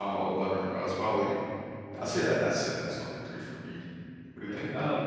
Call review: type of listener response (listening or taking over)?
taking over